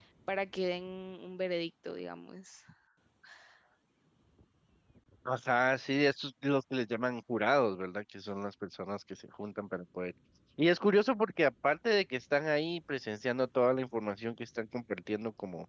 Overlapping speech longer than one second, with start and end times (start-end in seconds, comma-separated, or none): none